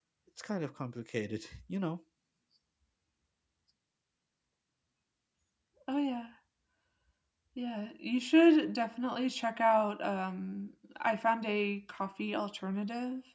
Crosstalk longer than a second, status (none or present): none